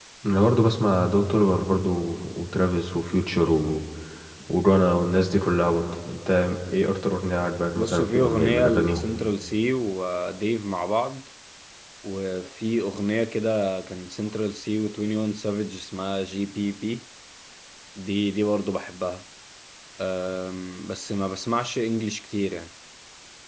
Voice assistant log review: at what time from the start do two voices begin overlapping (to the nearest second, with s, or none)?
8 s